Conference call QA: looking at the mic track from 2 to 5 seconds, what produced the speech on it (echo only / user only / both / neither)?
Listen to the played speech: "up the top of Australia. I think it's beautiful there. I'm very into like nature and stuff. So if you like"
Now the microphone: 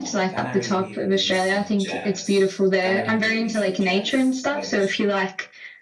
both